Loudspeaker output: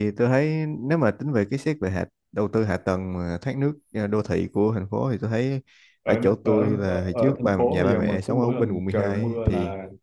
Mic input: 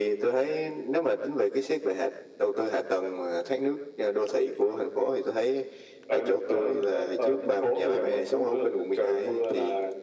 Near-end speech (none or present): none